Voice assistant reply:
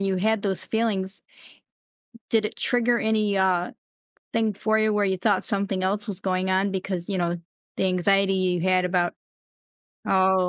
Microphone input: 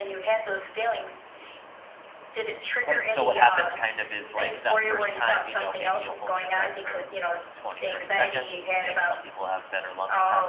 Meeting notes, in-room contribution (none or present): present